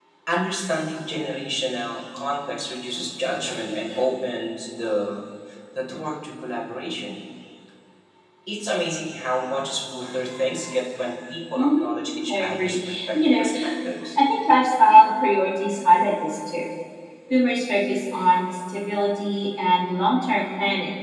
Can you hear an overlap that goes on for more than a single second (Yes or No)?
Yes